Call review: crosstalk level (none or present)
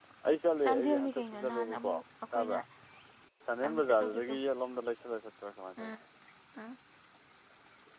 present